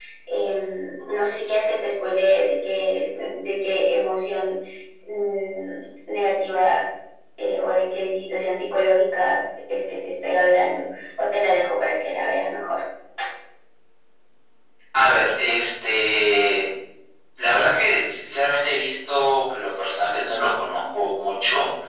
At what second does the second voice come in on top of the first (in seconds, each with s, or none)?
none